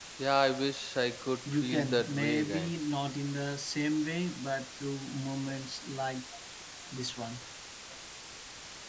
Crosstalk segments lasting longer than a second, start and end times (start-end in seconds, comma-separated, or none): 1.5-2.7